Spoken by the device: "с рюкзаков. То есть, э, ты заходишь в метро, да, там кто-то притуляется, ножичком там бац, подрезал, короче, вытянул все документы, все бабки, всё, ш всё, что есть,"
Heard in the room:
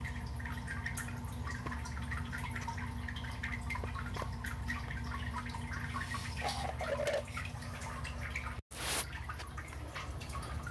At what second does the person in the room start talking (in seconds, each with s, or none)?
none